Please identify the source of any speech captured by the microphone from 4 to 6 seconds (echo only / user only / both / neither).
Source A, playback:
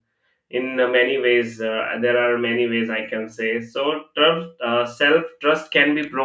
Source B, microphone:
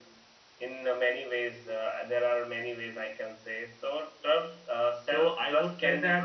both